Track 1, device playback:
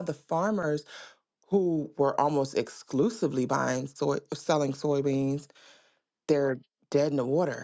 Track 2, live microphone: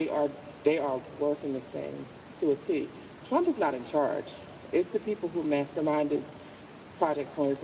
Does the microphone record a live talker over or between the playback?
Yes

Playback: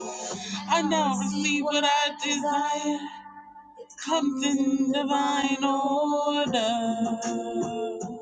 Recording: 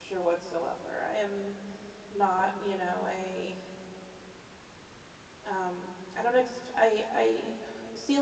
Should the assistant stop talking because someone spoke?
Yes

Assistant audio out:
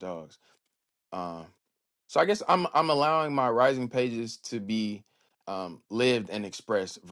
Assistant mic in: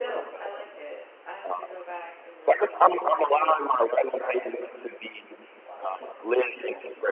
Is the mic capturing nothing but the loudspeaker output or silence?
No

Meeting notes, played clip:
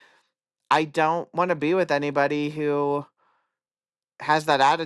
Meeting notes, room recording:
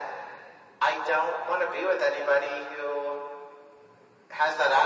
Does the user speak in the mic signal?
No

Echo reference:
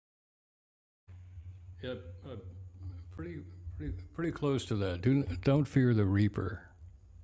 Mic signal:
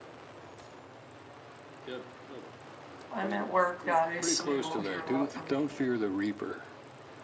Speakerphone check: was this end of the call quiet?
No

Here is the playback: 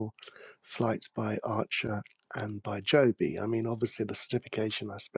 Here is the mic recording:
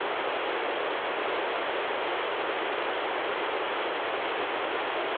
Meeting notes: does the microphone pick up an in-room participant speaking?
No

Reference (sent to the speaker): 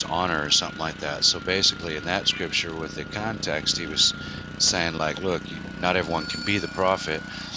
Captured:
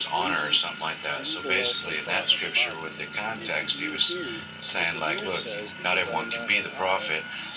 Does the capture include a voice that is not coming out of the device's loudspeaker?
Yes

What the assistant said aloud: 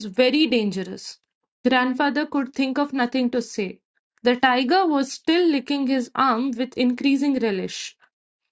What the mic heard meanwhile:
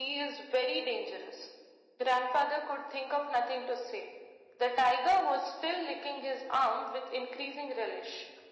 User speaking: No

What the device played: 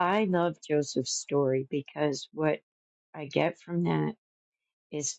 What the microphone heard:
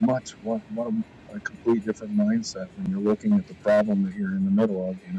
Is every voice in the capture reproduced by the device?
No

